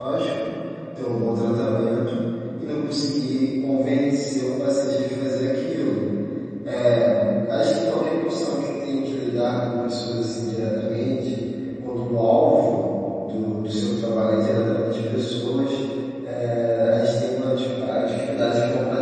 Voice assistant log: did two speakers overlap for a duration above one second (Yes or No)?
No